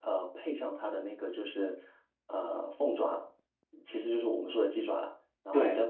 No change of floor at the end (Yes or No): Yes